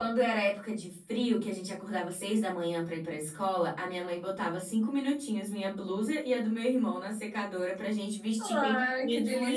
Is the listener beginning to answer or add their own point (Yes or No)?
Yes